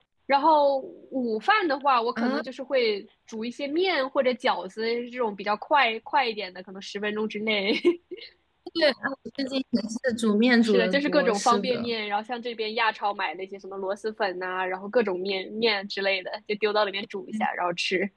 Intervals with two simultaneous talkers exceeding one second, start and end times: 10.6-11.9

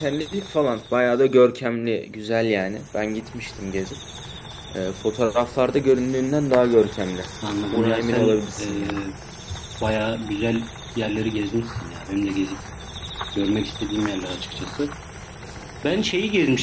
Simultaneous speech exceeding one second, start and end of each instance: 7.7-9.0

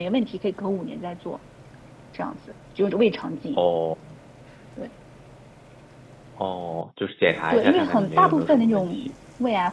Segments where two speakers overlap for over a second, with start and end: 7.5-9.1

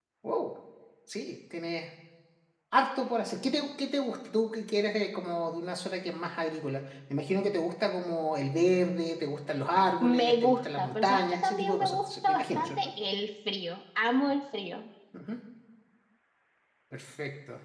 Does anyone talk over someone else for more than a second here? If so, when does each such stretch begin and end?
10.0-12.9

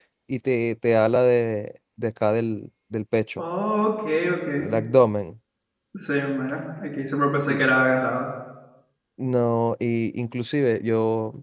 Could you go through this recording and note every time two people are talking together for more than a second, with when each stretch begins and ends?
none

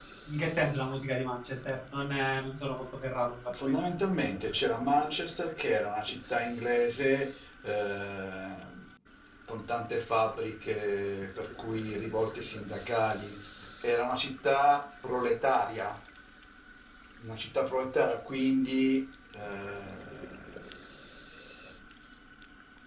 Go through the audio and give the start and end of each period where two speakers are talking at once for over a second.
none

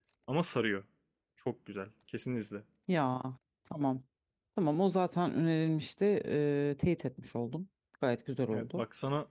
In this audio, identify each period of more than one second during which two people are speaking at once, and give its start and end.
none

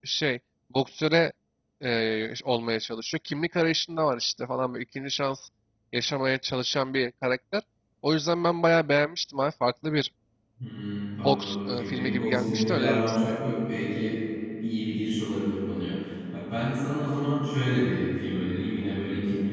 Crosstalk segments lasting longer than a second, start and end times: 11.2-13.3

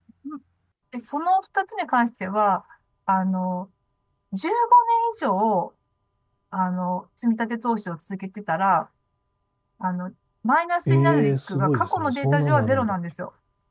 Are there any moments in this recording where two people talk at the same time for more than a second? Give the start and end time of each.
10.9-13.0

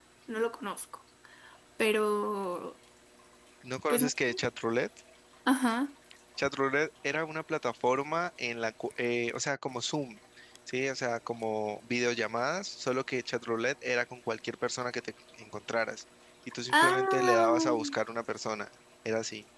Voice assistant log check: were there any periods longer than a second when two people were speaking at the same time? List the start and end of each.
16.7-17.9

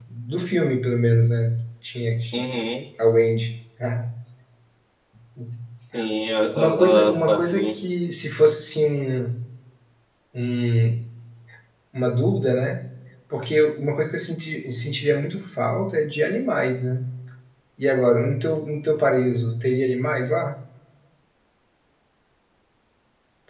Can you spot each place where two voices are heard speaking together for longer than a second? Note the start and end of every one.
6.5-7.8

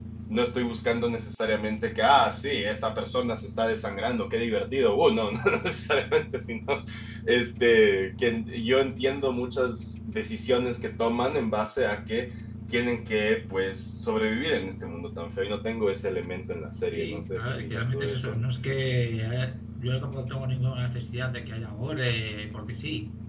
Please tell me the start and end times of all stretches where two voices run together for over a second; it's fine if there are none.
16.9-18.4

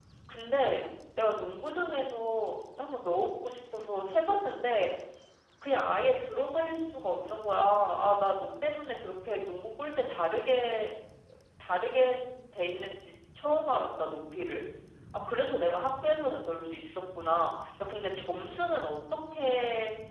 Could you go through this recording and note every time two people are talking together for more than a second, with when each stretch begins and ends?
none

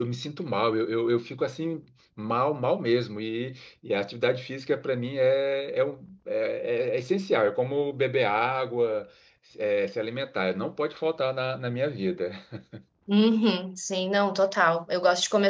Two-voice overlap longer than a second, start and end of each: none

